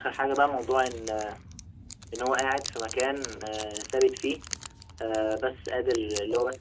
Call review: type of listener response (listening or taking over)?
listening